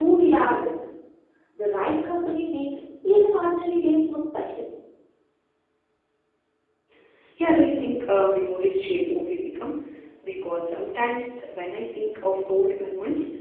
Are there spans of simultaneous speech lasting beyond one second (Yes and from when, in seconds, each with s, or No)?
No